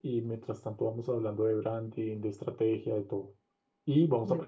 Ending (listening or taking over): listening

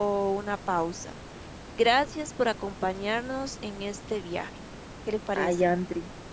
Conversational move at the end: taking over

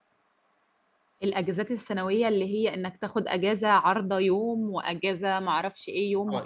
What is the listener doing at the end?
taking over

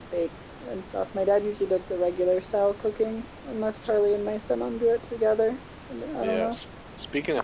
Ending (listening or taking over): taking over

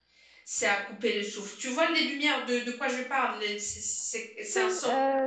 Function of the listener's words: taking over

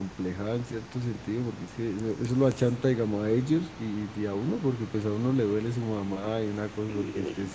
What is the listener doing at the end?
listening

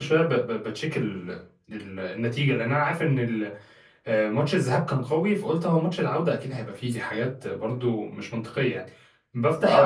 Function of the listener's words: listening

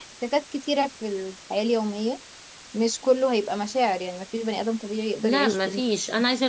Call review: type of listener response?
taking over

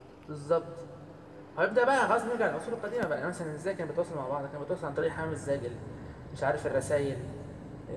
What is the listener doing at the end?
listening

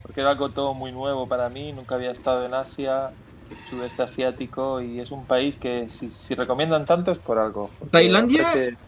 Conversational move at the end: taking over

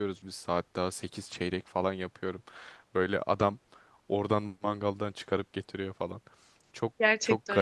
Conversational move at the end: taking over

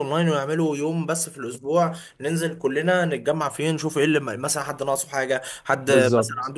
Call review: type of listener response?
listening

